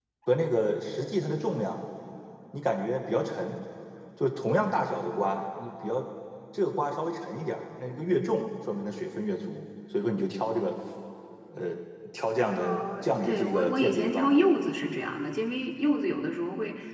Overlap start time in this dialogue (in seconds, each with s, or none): 12.6 s